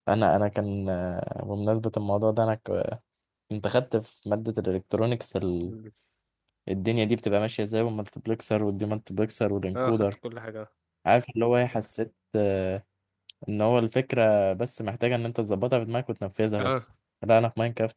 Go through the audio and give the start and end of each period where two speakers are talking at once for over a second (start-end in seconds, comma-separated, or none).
none